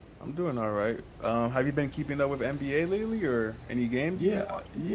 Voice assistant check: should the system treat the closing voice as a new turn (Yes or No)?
Yes